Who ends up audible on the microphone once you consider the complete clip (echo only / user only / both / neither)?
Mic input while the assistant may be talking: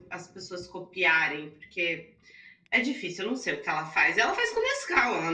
echo only